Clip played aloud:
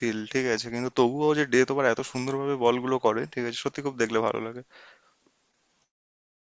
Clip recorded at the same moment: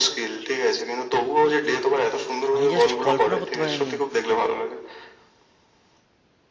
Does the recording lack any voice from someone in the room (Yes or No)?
No